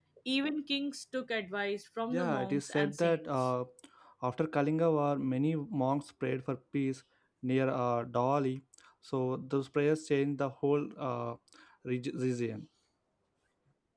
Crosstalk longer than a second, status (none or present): present